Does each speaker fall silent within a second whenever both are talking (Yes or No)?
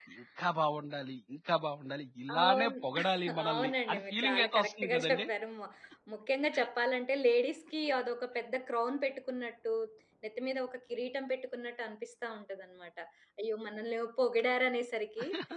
No